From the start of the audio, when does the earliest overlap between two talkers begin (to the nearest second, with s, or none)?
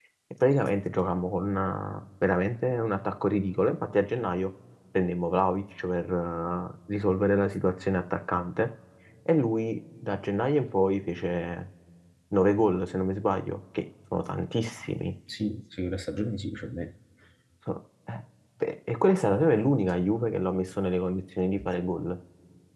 none